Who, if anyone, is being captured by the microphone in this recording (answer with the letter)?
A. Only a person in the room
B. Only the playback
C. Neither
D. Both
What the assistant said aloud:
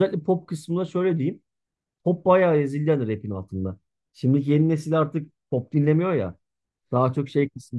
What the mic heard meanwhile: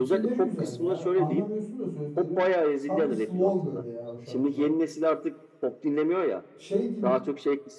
D